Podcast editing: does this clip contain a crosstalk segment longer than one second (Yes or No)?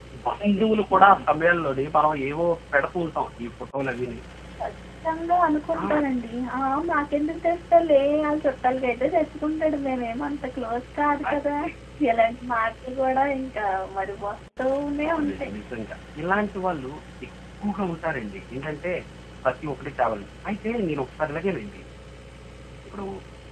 No